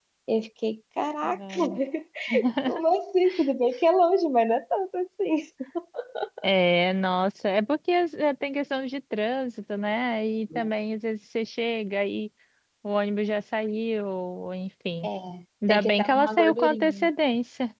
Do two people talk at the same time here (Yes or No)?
Yes